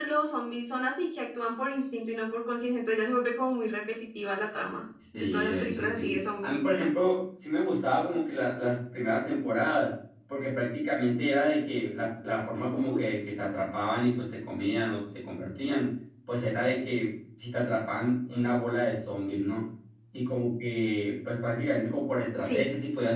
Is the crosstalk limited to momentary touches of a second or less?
No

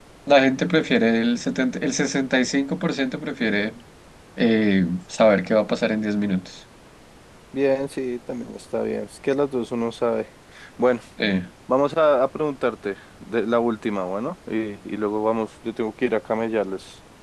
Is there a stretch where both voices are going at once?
No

